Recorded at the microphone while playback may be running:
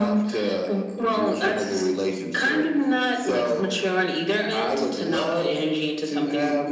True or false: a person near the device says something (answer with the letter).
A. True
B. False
B